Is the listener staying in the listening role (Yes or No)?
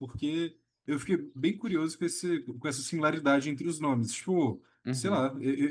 Yes